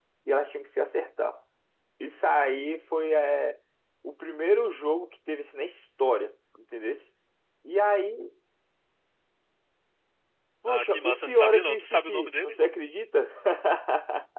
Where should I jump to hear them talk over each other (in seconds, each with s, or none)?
10.7 s